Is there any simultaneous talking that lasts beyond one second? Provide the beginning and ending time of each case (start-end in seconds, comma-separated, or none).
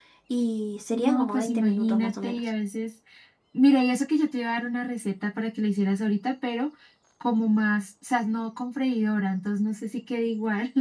0.9-2.4